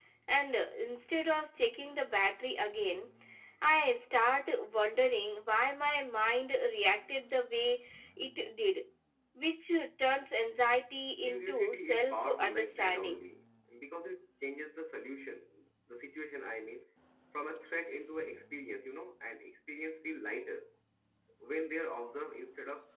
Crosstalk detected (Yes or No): Yes